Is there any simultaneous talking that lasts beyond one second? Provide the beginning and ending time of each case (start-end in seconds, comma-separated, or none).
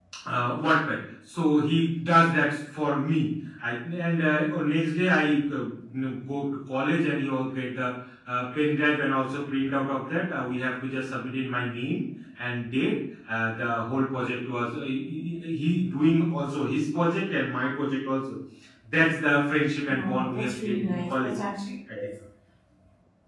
19.9-21.4